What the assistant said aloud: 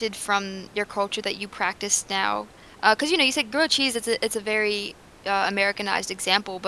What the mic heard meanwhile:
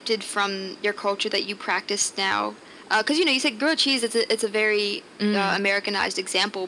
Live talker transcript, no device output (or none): Mm,